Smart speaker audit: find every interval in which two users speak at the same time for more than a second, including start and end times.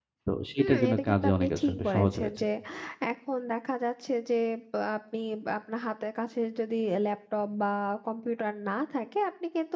0.6-2.3

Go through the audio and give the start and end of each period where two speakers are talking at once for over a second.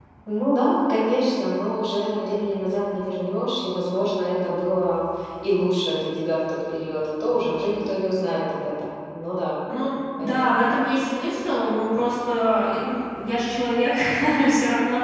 none

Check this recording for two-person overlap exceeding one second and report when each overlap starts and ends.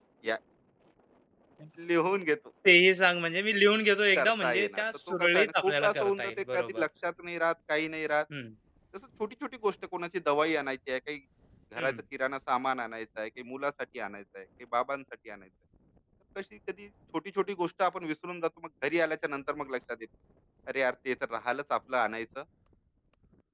4.2-6.8

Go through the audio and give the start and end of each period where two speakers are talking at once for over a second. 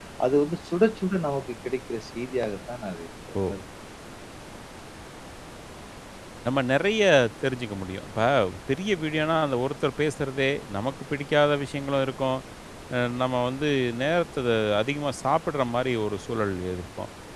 none

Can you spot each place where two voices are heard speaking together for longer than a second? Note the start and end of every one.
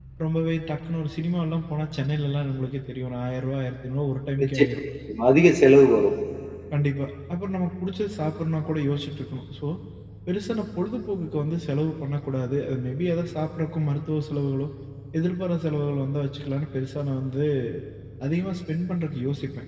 none

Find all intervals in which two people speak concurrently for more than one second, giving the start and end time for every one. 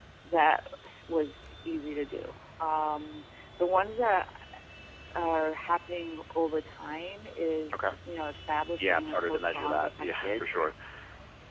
8.8-10.4

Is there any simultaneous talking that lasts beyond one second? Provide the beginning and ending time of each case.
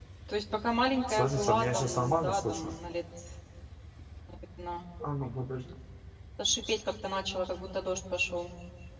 1.1-2.8

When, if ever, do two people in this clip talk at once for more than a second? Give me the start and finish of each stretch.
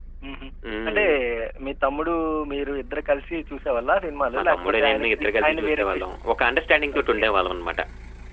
4.3-6.0

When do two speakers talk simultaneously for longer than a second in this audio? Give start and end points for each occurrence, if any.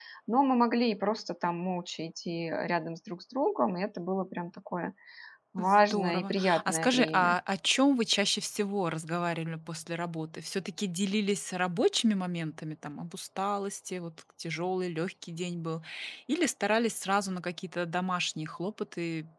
5.6-7.4

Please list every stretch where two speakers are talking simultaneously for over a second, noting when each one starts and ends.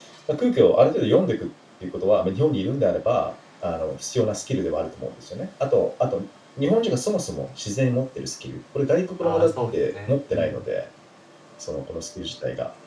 9.2-10.6

